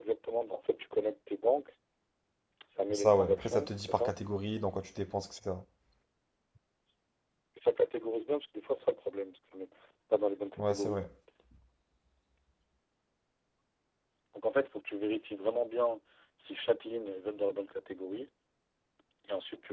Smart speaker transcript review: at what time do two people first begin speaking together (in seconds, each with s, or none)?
2.9 s